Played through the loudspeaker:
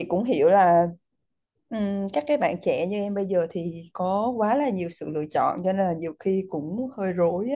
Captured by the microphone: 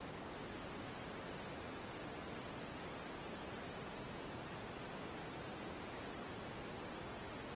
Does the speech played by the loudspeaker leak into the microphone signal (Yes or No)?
No